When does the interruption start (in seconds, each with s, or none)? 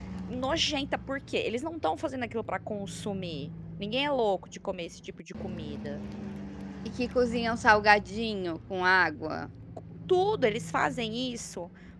none